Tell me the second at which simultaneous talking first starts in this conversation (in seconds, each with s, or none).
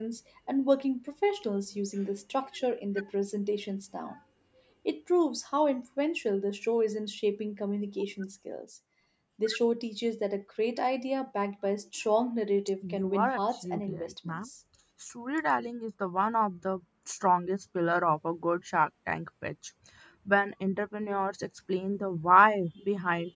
12.8 s